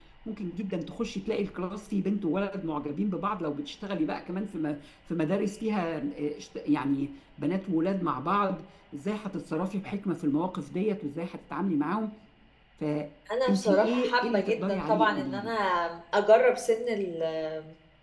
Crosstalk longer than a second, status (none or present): present